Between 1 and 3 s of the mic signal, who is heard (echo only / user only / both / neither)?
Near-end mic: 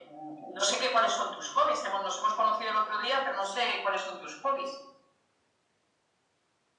echo only